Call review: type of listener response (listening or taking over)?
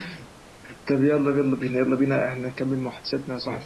taking over